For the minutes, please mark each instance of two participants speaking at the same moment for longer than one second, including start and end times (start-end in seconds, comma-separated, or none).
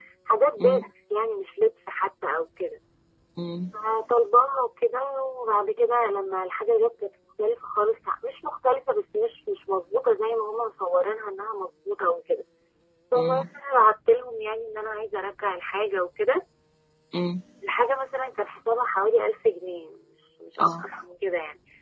none